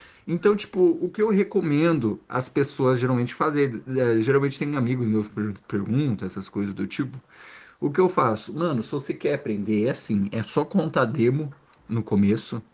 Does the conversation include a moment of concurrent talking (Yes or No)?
No